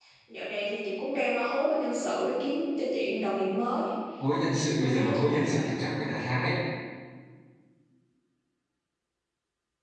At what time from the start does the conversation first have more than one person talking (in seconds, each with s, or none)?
4.4 s